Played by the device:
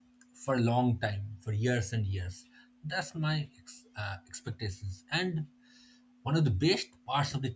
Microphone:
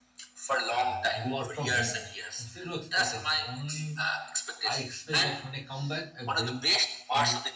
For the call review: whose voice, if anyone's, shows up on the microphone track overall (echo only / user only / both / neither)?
both